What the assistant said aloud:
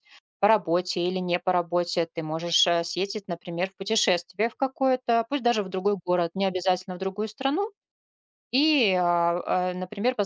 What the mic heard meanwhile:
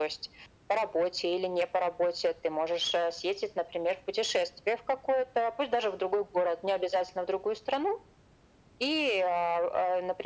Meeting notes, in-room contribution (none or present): none